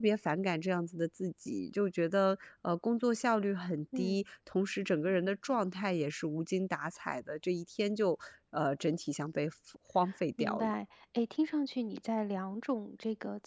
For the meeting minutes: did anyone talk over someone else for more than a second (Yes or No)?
No